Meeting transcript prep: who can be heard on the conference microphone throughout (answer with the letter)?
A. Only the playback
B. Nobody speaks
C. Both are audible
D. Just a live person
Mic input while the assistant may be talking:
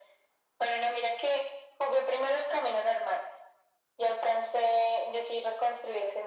A